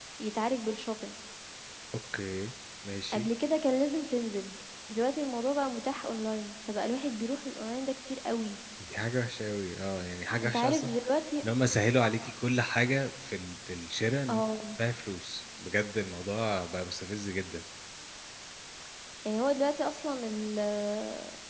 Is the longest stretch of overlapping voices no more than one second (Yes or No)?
Yes